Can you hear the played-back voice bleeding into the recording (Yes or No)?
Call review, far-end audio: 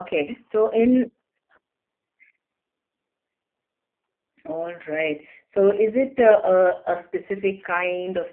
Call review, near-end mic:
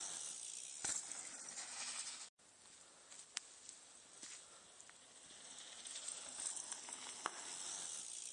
No